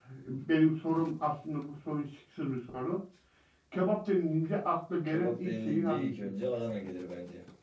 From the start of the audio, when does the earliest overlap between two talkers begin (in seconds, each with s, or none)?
5.0 s